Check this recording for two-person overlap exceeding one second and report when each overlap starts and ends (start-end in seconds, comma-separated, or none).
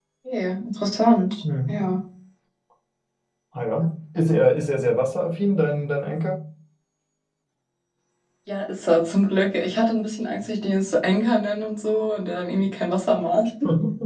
none